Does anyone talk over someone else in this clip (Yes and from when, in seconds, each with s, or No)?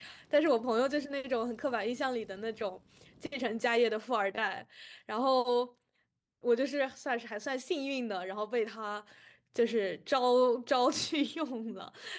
No